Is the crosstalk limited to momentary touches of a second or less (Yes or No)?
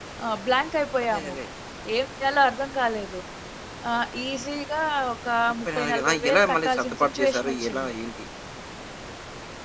No